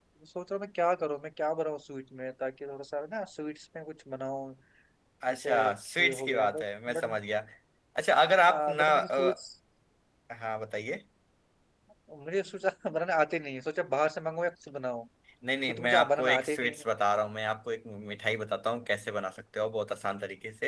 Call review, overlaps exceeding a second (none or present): present